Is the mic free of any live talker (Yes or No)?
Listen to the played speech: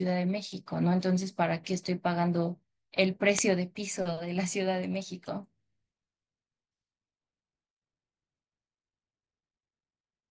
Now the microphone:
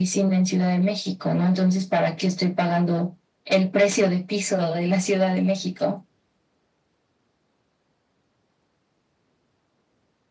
Yes